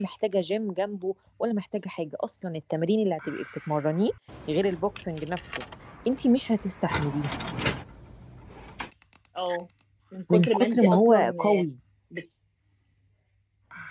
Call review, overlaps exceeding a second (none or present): present